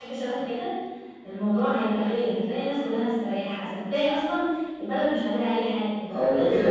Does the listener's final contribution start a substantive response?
Yes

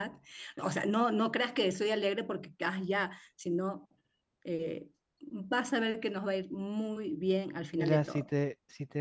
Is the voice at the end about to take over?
Yes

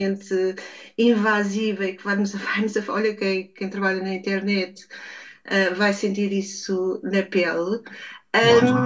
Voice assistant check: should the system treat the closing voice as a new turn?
No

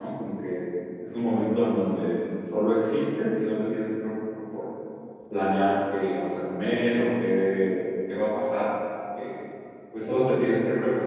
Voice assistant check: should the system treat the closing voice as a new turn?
No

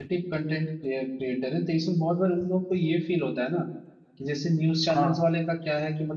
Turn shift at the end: No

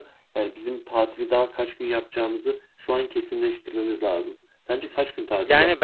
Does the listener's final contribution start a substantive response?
Yes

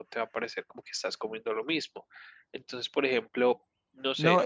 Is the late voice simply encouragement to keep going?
No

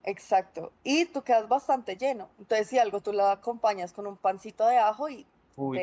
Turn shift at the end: Yes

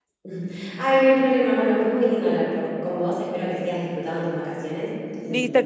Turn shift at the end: Yes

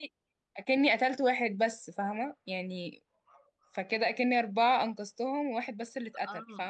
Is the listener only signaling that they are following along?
No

